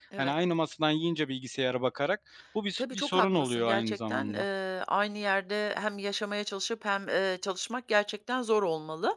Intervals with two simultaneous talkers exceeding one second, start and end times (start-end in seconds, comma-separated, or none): 2.8-4.5